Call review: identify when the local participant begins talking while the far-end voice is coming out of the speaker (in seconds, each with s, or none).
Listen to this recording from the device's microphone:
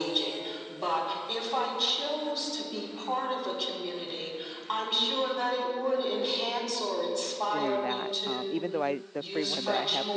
7.5 s